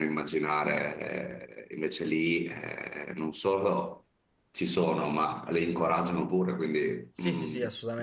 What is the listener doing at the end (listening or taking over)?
taking over